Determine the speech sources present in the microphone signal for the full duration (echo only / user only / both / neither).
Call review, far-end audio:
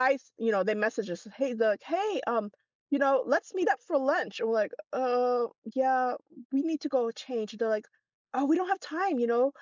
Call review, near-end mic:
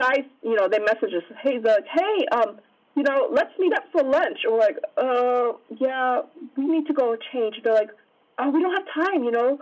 echo only